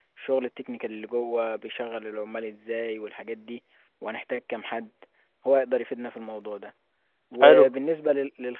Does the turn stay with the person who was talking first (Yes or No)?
Yes